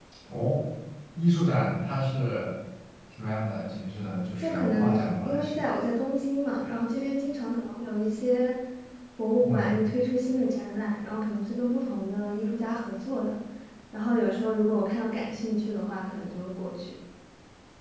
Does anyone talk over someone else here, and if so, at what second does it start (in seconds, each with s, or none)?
4.4 s